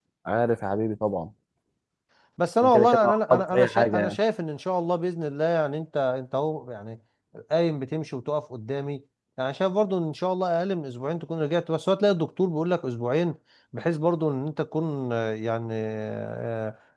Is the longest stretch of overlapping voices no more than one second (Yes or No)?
No